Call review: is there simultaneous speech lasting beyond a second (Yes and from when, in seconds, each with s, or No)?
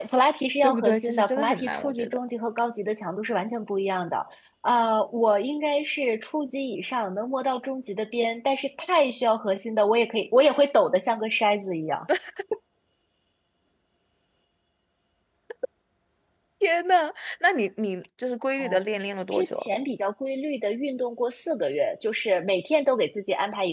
Yes, from 0.6 s